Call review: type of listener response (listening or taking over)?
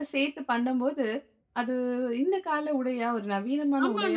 taking over